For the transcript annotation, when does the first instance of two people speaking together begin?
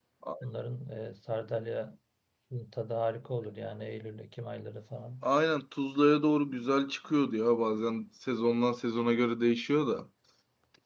none

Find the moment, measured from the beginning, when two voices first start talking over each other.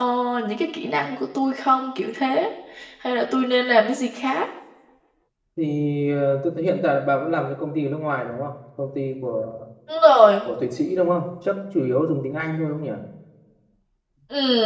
none

